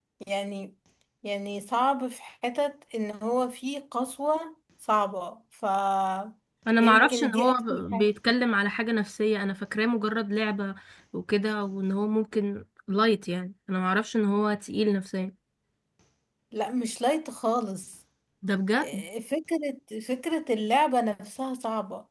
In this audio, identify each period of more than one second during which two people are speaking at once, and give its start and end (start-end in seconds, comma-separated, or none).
6.8-8.1